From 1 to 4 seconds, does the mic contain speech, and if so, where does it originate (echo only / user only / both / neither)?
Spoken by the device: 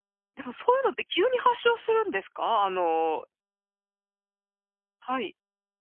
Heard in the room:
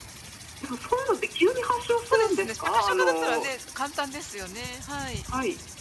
both